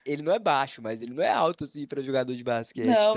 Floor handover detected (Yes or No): Yes